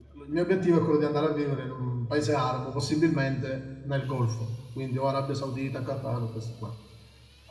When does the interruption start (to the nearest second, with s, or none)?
none